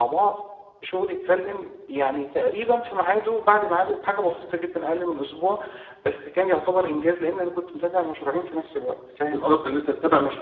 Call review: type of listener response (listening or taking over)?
taking over